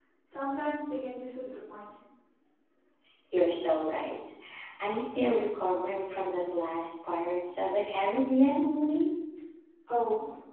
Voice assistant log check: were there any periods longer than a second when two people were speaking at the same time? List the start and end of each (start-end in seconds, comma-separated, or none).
none